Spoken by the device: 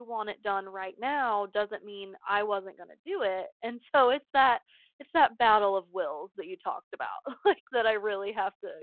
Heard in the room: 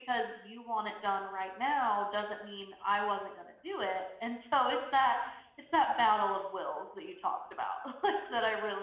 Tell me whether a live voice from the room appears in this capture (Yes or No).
No